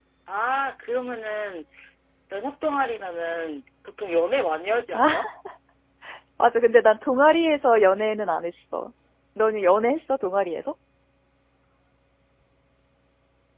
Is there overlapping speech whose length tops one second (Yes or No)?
No